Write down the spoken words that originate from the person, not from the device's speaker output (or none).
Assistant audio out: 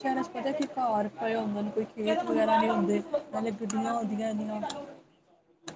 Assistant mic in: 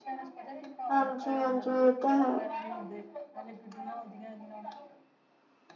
ਹਾਂਜੀ, ਹਾਂਜੀ ਇਹ ਤਾਂ ਹੈ।